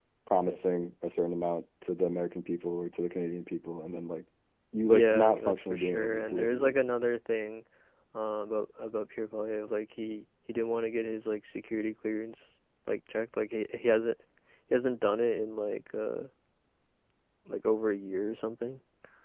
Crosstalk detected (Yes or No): Yes